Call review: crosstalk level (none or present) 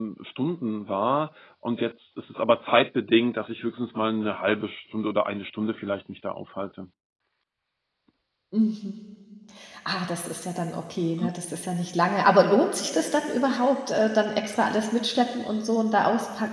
none